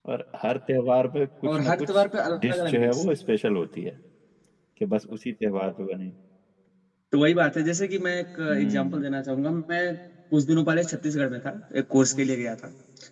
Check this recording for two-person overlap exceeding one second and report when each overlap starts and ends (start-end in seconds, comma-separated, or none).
1.5-3.0